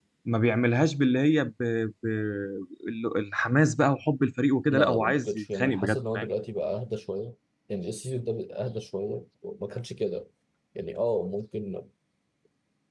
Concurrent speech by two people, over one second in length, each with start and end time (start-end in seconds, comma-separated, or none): 4.7-6.3